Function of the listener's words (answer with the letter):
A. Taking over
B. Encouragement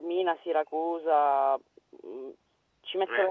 B